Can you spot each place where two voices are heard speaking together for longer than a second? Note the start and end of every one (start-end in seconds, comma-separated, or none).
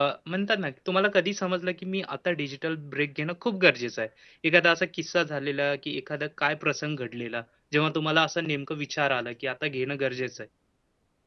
none